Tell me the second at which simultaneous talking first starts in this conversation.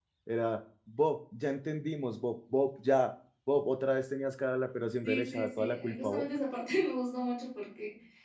5 s

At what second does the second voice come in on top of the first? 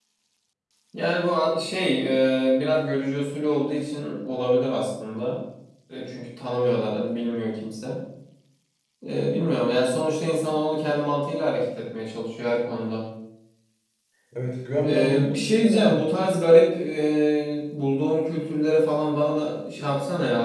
15 s

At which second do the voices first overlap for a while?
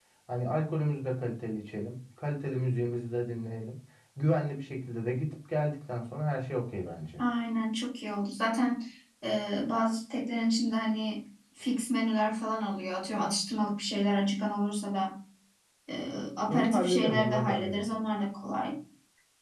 17 s

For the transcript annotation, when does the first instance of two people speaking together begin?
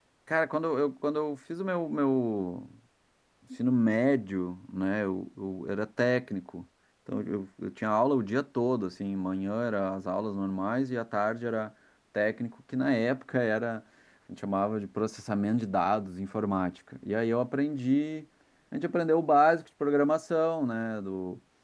none

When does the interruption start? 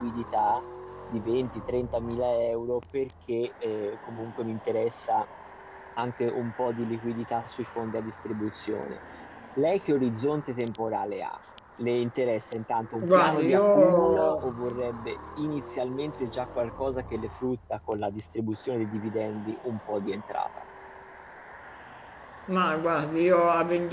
13 s

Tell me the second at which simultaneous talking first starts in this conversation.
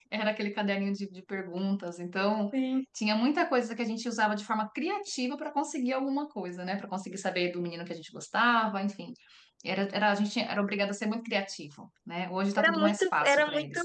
13 s

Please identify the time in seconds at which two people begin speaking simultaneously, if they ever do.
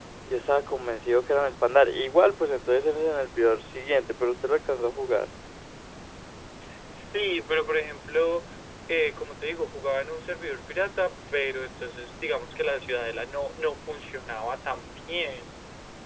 none

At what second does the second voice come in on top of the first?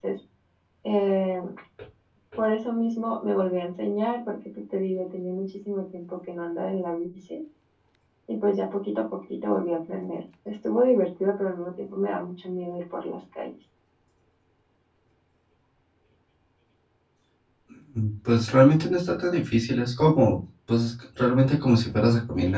none

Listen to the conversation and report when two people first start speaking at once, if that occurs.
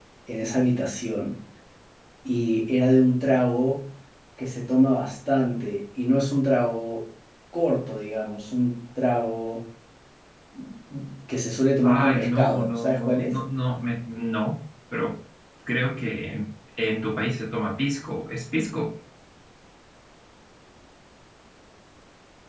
12 s

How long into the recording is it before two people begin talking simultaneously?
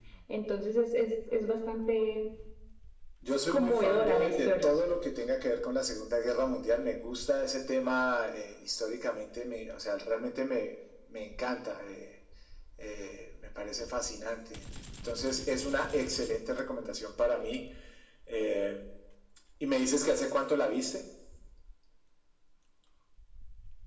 3 s

